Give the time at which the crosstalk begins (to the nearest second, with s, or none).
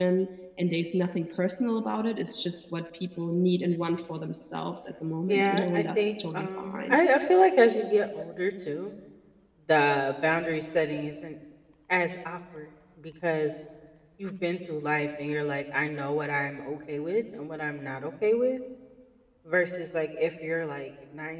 5 s